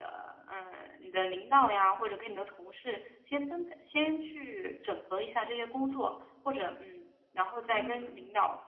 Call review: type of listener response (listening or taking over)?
listening